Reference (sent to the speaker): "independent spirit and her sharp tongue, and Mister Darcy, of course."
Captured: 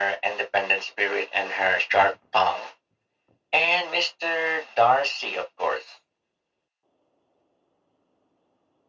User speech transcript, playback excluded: none

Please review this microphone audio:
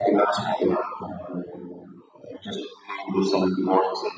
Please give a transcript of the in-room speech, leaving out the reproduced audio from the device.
none

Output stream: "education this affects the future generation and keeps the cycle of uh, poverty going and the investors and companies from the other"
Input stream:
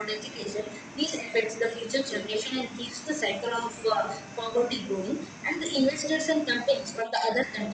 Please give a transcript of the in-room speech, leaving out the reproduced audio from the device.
none

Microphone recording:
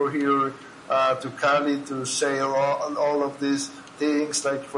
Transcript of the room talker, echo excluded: none

